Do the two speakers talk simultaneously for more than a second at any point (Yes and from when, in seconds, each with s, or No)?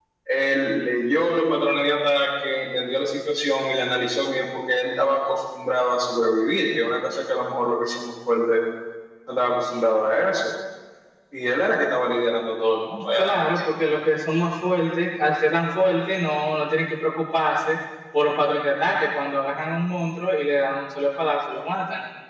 No